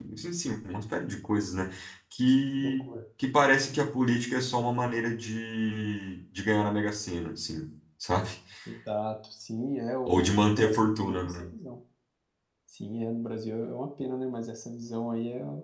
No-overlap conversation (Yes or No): No